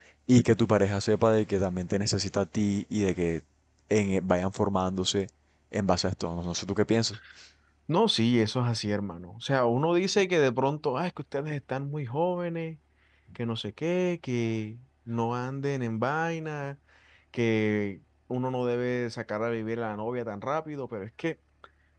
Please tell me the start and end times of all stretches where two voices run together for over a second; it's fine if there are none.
none

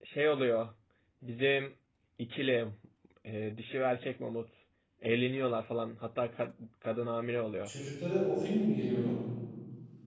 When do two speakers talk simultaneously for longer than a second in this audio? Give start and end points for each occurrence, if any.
none

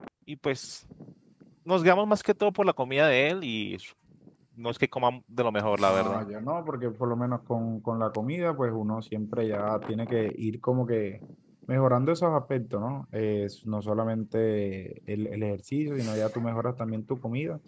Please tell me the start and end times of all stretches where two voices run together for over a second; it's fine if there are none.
none

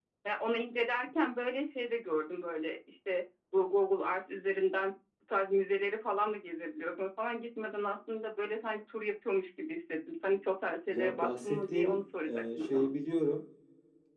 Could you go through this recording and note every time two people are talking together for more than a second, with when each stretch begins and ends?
10.9-12.9

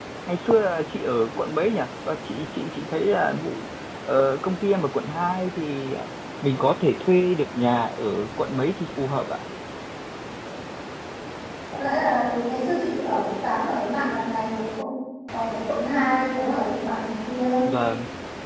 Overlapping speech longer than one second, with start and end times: none

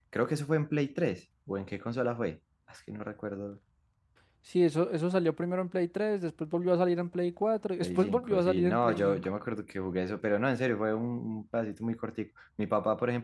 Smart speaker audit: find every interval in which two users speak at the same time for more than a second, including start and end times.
7.8-9.2

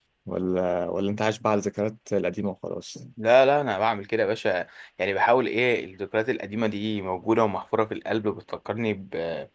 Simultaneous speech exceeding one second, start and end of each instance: none

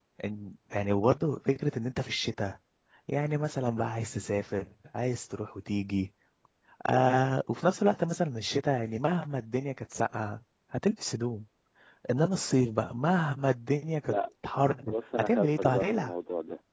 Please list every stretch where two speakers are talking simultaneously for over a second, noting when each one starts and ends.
14.9-16.1

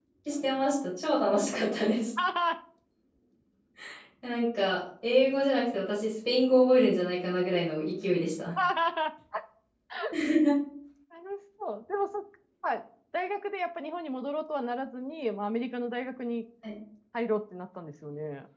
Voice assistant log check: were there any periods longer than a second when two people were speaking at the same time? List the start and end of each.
none

